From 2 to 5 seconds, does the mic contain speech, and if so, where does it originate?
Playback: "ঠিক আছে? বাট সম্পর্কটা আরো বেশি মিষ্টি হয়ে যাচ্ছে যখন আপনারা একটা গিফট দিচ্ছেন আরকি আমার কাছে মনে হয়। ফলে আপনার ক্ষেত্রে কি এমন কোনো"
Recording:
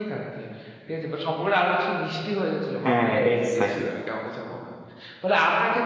both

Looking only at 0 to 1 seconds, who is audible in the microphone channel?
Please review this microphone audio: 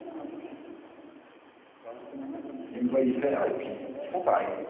echo only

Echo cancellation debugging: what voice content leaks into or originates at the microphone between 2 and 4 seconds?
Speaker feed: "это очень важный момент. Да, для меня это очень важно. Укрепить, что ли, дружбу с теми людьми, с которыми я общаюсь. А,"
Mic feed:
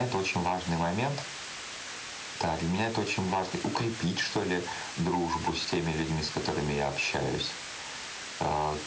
echo only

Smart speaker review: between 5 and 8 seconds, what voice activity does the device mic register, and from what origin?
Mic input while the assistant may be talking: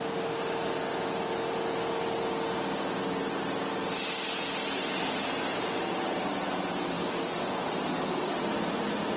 neither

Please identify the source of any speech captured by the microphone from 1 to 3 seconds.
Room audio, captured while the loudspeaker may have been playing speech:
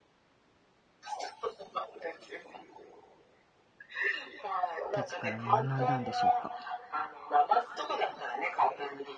echo only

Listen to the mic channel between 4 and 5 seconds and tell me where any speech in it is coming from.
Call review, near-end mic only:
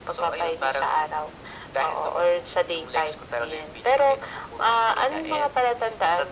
echo only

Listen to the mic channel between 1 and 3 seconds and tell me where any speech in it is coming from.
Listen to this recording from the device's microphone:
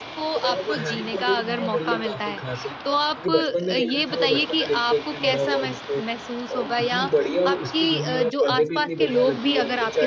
both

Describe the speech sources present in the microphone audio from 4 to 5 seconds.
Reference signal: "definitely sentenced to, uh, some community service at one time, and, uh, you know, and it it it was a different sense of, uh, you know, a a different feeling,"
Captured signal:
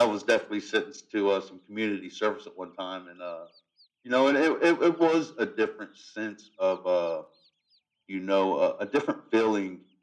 echo only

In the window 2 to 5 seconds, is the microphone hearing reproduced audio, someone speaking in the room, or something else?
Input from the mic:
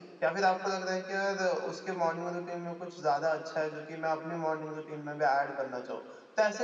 echo only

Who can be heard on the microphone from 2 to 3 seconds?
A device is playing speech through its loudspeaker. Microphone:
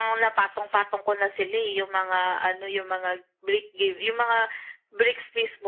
echo only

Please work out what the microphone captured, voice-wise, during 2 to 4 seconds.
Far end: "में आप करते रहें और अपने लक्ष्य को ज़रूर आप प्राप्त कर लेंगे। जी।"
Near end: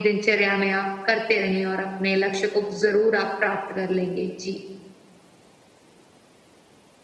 echo only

